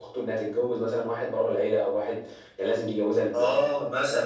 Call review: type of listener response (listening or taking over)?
taking over